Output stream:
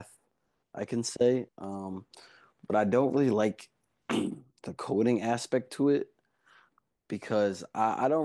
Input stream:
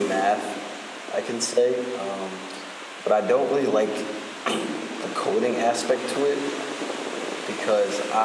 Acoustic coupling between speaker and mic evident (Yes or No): Yes